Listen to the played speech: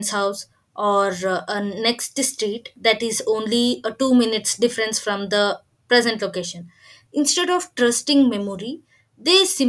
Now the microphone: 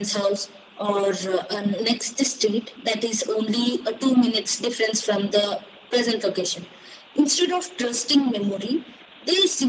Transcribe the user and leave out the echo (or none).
none